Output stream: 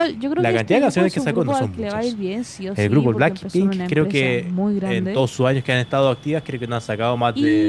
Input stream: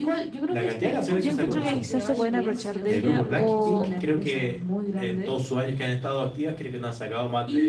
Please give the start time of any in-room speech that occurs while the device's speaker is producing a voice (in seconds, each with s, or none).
1.1 s